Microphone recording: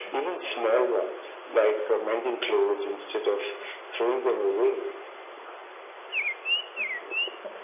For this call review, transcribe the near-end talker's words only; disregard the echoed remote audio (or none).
none